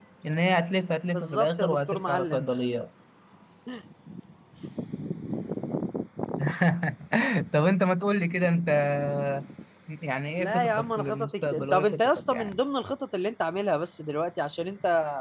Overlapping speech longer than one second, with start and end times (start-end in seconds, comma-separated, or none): 1.1-2.4, 10.4-12.6